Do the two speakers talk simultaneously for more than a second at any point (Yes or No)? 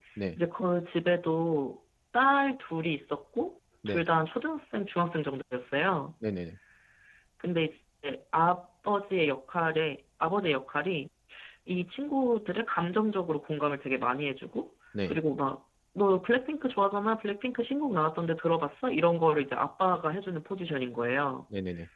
No